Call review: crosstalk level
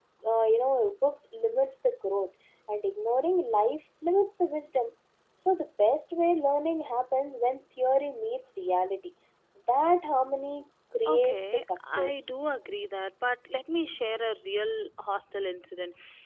present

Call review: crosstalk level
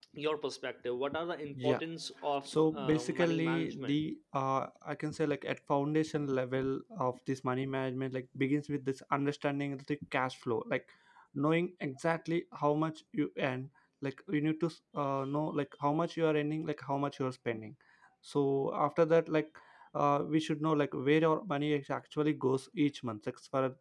present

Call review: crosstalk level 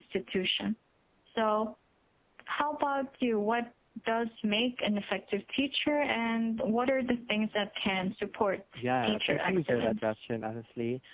present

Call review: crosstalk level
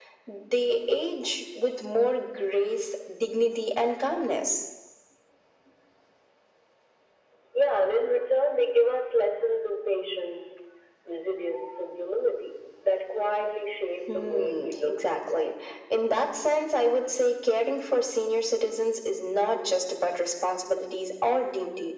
present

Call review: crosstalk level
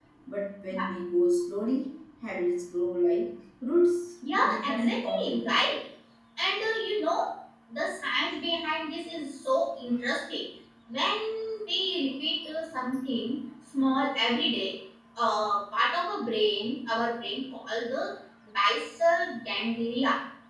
present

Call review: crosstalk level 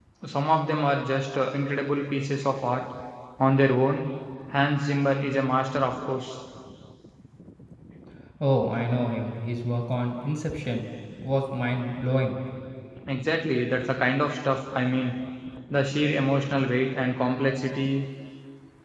none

